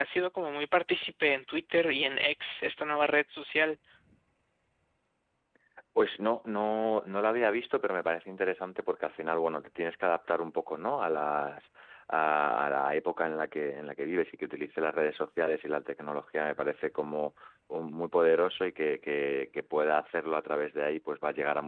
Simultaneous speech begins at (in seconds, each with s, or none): none